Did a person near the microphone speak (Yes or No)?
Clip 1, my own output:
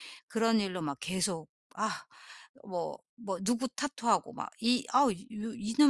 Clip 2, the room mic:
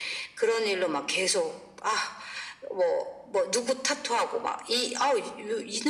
No